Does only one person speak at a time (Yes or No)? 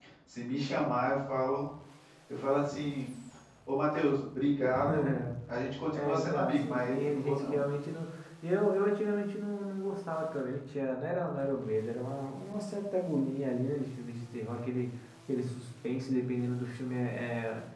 No